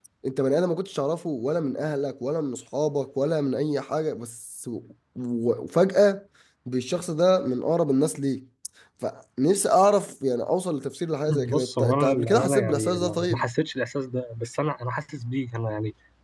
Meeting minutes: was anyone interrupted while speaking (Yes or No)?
Yes